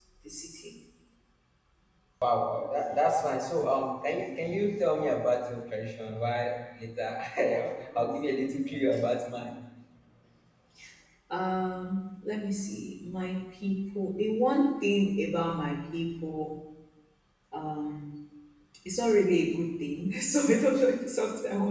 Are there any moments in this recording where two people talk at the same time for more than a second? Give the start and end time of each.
none

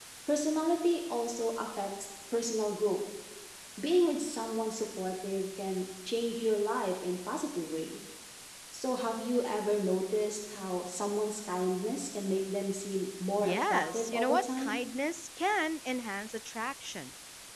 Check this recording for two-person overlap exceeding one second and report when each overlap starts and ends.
13.4-14.7

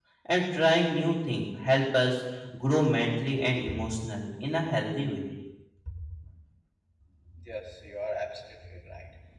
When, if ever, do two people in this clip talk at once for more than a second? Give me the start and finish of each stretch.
none

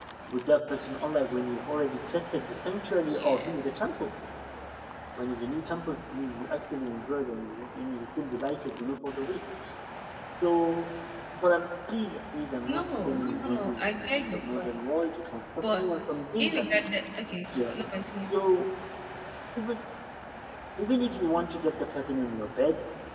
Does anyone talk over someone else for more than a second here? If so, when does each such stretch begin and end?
12.7-14.7

